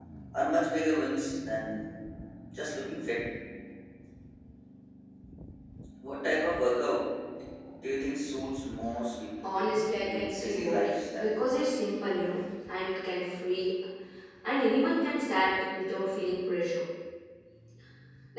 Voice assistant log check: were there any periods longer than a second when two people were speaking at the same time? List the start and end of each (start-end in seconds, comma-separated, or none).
10.0-11.3